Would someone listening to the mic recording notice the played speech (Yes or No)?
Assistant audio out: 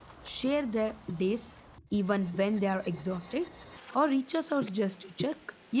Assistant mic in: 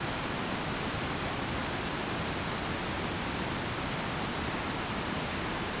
No